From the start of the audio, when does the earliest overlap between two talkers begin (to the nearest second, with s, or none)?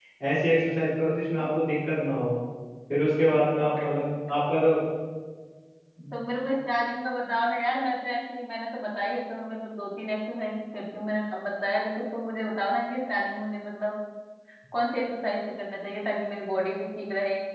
none